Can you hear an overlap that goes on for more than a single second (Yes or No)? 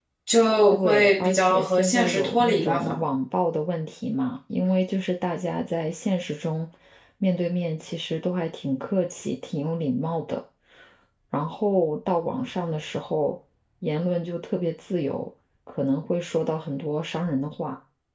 Yes